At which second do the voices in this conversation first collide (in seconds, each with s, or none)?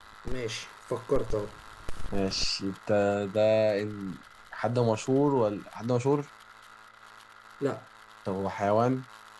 none